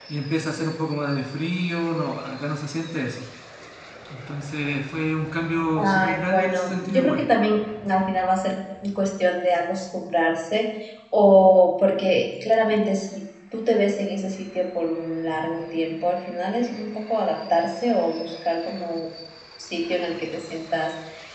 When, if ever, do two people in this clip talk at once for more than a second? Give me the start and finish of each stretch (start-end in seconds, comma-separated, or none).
5.8-7.2